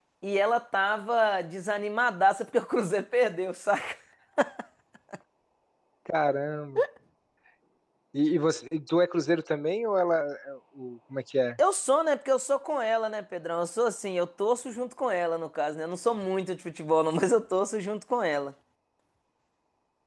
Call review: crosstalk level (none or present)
none